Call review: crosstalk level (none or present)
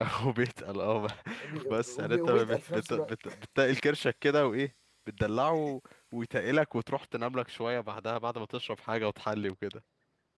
present